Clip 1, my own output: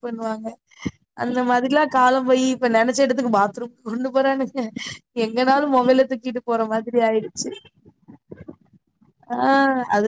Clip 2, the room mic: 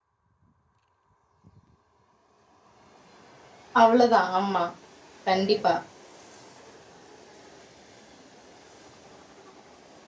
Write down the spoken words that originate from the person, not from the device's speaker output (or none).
அவ்ளோதா ஆமா கண்டிப்பா